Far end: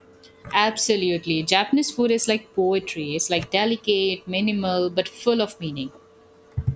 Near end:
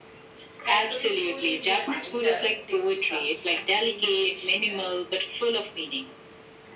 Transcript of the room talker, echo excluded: Cantonese food is uh, milder, dim sum, and steamed fish in that.

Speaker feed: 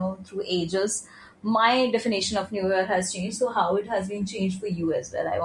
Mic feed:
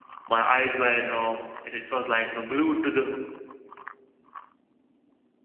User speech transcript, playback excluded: my eyes were you know it, it was like you know glued to the

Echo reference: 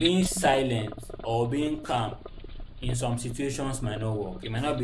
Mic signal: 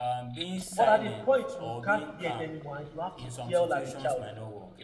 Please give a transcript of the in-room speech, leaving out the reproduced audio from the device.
but at a point you can't hear it anymore and you have to yell at the child.

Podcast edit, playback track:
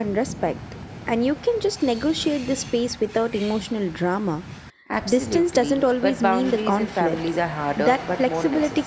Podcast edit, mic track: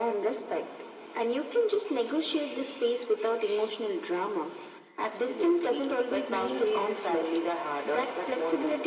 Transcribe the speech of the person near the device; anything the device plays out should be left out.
none

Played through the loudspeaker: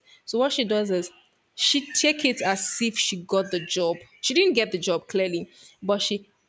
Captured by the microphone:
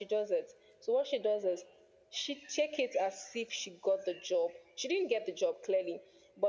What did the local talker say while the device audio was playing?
none

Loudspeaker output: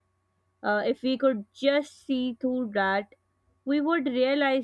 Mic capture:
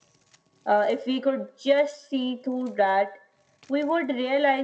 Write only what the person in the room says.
none

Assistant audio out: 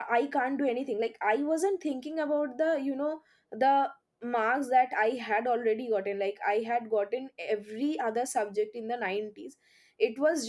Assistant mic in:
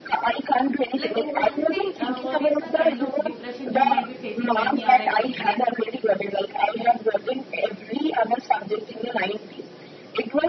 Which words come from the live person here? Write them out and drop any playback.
Like what is the uh, what is the kind of depression you might be facing when you are a kid? Like

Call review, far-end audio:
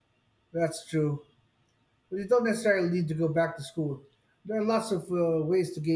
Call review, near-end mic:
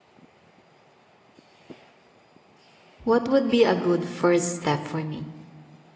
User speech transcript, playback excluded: What would be a good first step for me?

